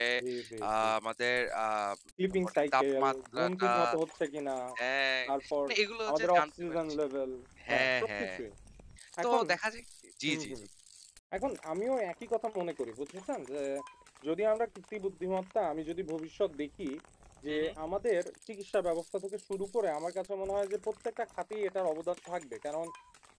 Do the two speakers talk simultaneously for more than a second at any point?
Yes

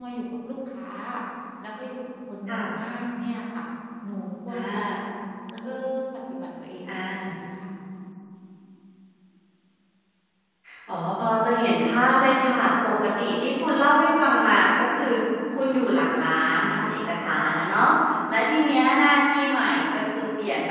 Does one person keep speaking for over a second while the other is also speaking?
No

